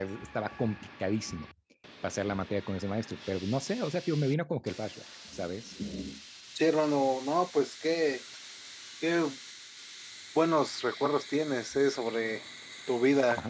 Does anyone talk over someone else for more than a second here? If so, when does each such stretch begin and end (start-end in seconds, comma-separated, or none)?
none